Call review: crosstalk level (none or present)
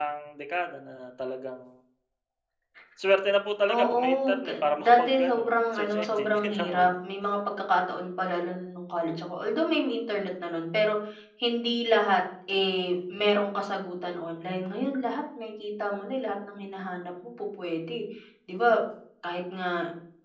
present